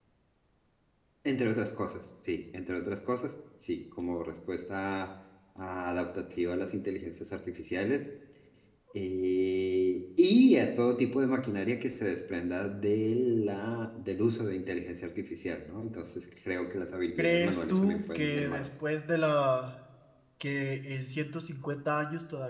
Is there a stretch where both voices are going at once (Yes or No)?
Yes